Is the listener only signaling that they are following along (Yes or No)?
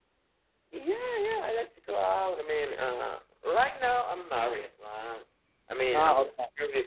Yes